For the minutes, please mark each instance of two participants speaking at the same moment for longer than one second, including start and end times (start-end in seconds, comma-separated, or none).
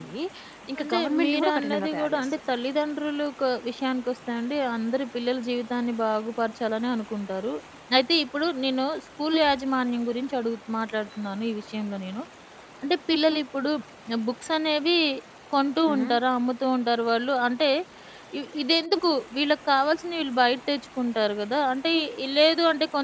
0.8-2.5